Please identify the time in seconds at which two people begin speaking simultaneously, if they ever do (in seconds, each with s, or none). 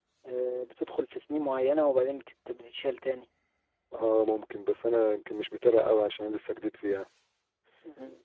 none